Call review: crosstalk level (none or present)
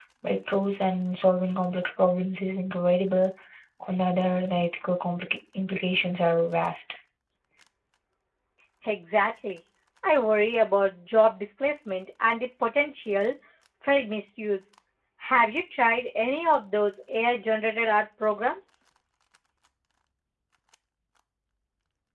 none